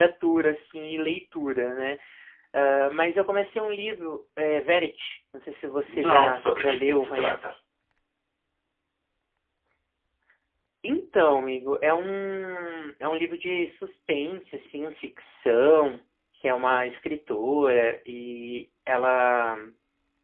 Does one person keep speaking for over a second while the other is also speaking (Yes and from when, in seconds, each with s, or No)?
Yes, from 5.9 s